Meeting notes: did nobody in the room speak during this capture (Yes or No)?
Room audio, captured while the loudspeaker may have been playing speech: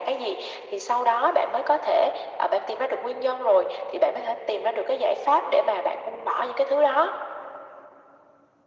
Yes